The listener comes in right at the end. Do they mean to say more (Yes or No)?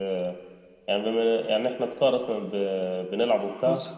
No